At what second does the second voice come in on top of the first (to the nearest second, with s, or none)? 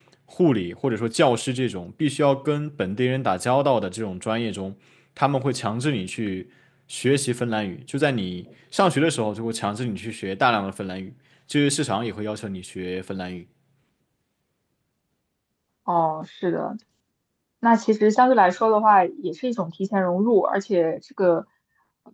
none